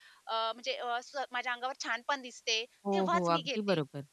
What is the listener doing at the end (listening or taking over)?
taking over